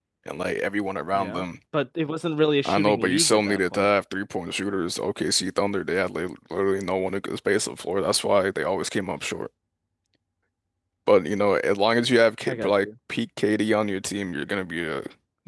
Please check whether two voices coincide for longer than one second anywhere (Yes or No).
Yes